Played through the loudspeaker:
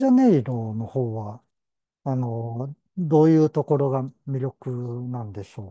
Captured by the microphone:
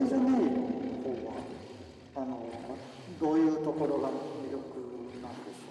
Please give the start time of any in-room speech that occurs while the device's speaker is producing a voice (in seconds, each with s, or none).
none